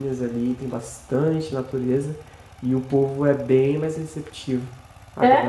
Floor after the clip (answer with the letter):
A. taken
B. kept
B